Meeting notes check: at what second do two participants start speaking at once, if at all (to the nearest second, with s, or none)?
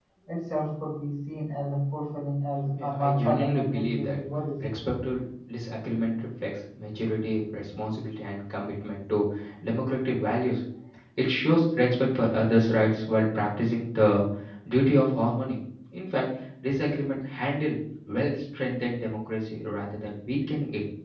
3 s